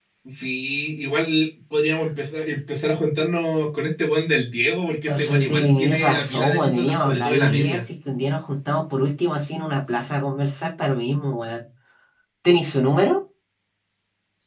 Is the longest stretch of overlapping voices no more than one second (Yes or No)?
No